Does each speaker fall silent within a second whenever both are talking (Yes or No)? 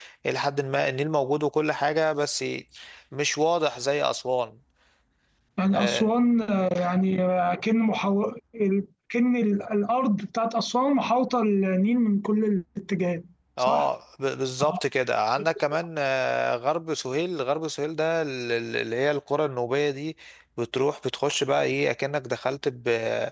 Yes